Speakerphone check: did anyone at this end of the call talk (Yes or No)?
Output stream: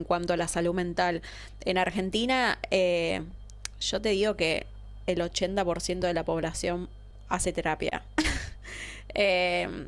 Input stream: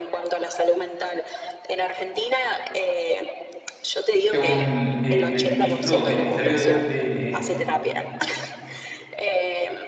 Yes